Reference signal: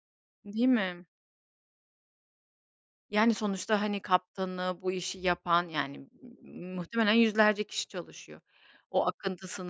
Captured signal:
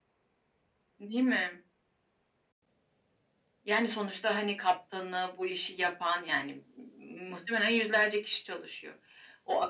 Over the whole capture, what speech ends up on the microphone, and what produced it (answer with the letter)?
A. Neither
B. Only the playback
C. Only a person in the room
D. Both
B